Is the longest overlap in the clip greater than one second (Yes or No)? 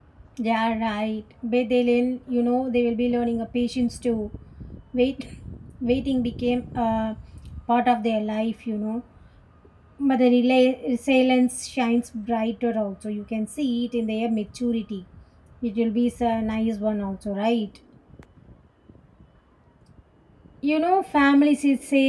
No